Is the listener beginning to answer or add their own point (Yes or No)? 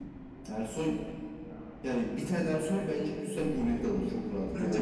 Yes